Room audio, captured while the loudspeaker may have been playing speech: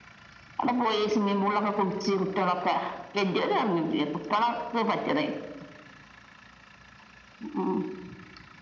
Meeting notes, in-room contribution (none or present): none